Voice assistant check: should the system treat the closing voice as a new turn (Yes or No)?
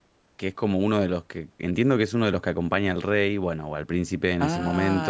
Yes